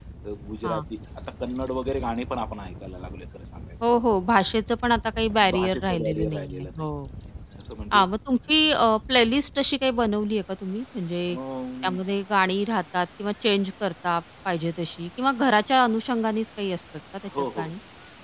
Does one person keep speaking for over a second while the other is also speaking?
Yes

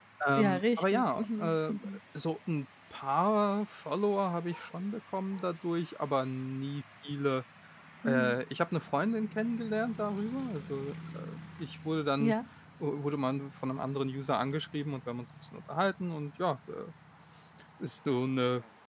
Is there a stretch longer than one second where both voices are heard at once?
Yes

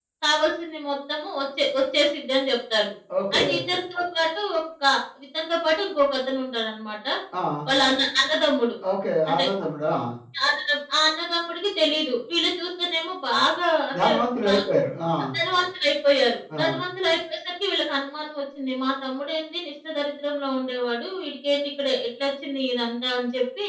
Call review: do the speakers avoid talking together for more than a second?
Yes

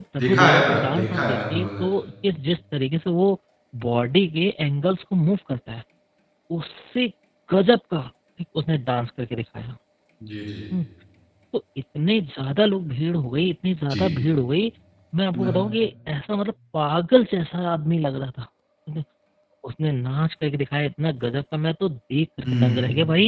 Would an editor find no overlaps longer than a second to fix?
No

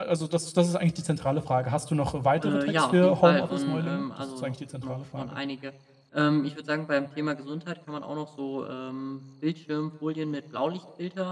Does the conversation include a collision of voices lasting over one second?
Yes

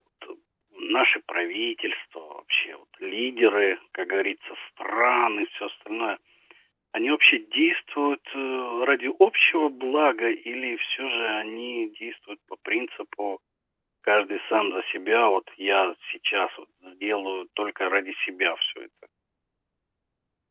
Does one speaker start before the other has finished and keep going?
No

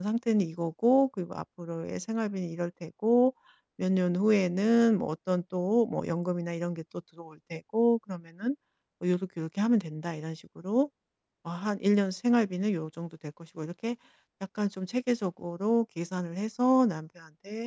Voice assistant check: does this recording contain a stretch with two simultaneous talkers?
No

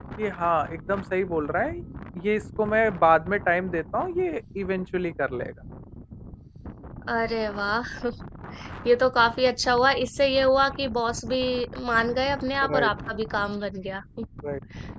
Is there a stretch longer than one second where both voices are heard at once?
No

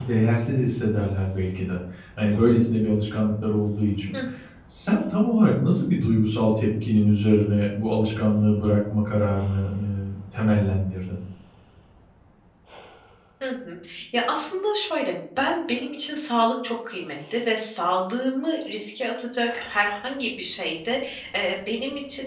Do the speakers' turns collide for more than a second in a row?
No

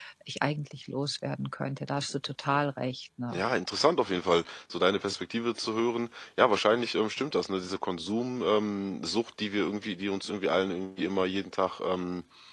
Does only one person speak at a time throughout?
Yes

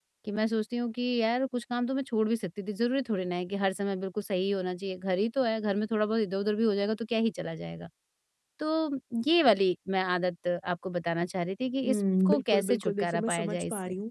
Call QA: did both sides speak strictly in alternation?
No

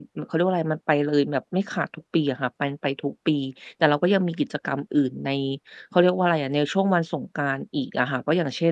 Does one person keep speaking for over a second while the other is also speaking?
No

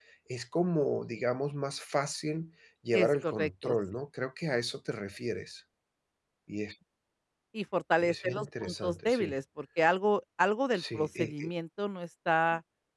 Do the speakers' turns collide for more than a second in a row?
Yes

